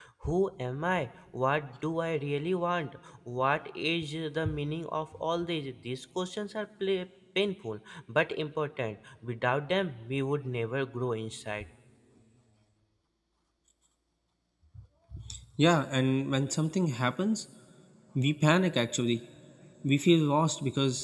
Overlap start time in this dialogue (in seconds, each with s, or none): none